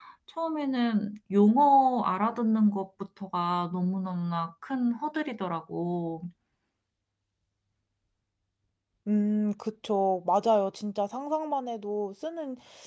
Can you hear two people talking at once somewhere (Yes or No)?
No